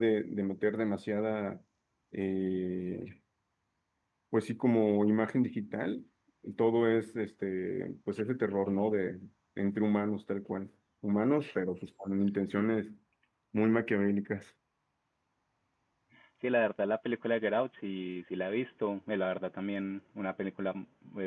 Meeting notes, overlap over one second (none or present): none